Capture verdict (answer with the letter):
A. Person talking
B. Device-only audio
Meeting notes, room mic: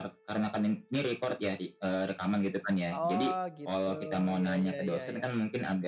A